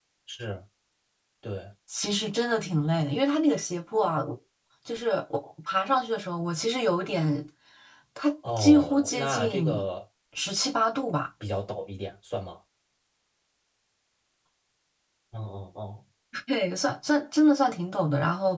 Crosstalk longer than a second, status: present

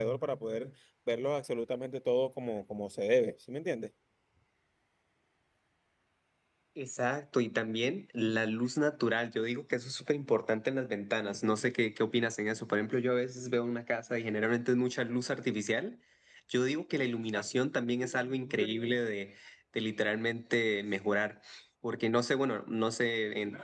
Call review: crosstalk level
none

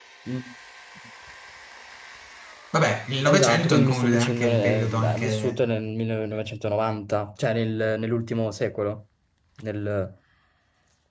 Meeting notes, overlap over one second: present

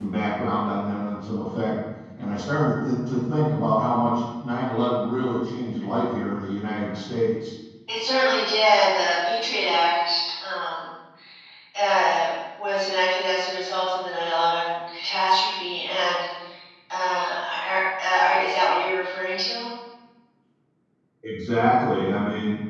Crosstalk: none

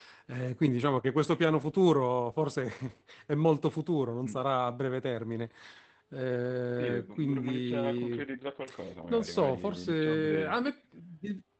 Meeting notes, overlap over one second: present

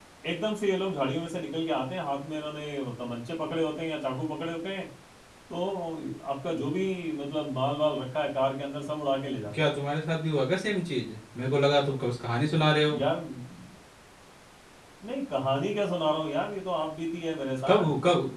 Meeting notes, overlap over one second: none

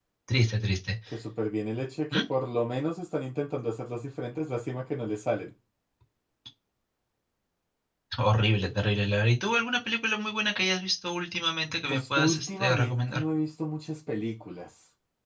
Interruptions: present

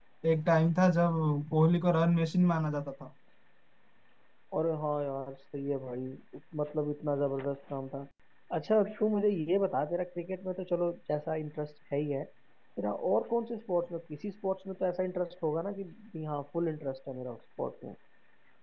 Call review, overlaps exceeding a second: none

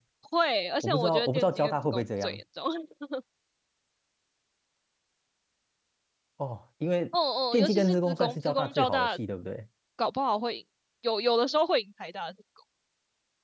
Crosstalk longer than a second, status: present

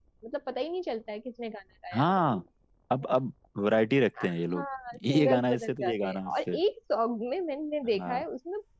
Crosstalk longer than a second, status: present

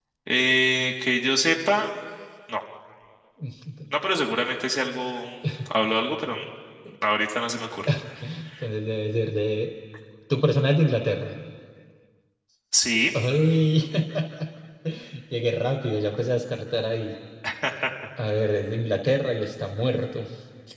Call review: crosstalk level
none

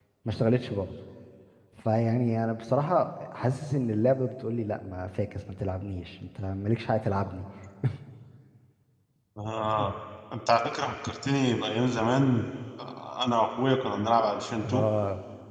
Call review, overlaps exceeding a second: none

